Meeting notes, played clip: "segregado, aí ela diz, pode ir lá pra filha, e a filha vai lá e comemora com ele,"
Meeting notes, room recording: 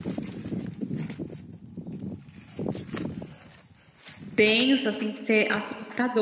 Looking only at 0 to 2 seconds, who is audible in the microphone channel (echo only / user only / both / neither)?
neither